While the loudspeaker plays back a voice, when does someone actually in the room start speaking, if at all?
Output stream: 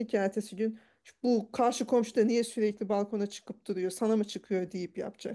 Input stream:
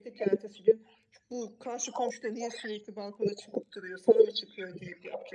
none

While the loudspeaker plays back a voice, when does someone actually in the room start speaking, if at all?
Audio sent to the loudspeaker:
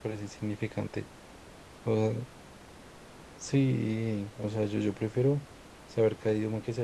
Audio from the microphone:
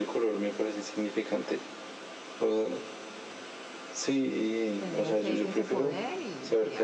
4.8 s

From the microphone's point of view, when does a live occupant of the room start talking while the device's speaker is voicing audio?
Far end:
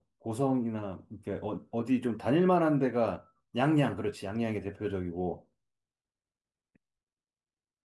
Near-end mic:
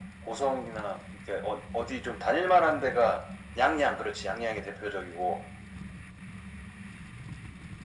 none

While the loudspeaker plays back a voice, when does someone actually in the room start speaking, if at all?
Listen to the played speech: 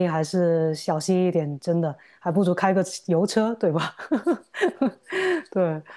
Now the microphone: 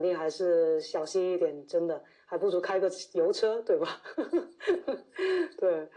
none

